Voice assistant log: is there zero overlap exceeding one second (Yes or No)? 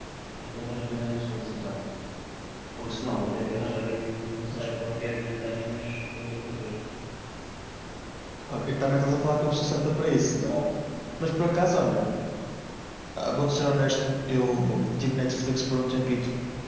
Yes